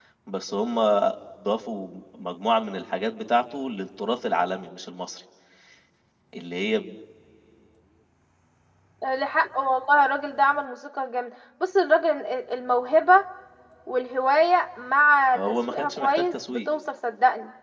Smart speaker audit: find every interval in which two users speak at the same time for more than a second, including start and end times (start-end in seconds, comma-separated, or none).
15.3-16.7